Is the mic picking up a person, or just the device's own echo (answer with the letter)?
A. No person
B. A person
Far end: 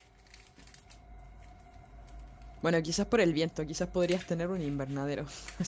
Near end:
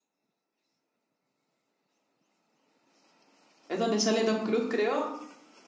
B